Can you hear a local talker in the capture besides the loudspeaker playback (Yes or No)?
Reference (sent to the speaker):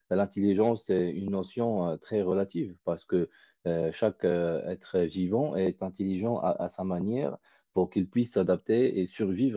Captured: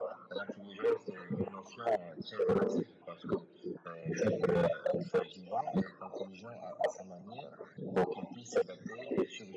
No